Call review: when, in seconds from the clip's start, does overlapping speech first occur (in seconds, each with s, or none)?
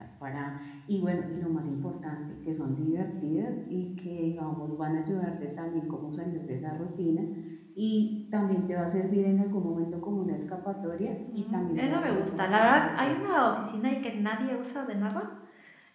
11.3 s